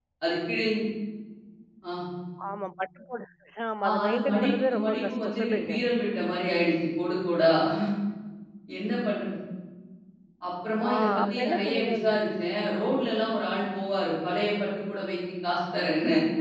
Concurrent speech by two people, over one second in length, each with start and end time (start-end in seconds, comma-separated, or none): 3.8-5.7, 10.8-12.1